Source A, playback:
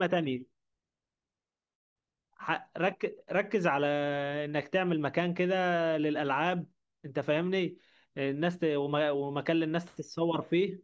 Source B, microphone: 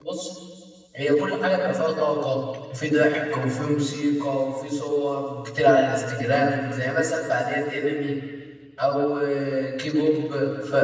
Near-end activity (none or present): present